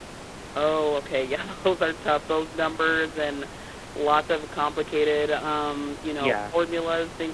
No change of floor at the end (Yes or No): Yes